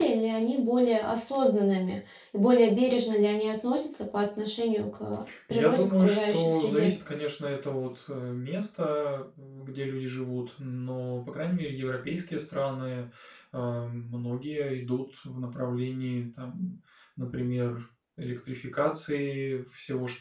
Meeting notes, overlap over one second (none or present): present